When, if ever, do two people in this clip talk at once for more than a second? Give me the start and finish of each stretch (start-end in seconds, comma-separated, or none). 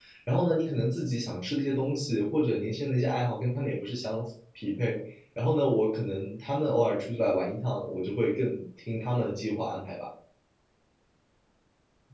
none